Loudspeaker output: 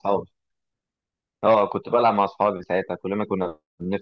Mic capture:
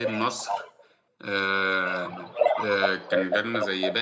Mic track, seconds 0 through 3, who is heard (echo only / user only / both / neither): both